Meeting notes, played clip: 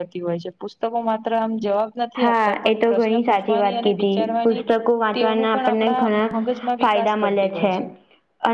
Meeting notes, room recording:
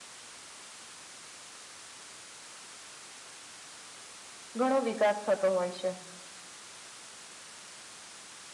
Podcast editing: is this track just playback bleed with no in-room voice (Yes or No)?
No